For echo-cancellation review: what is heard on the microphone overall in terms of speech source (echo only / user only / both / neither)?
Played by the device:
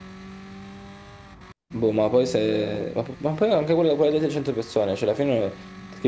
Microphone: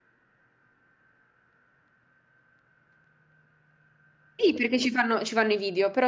user only